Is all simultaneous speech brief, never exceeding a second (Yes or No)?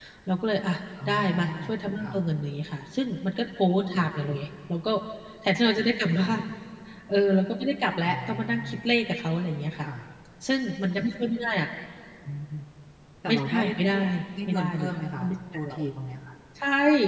No